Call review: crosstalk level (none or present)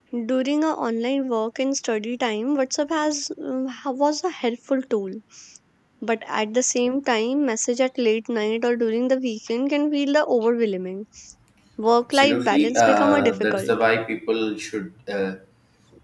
present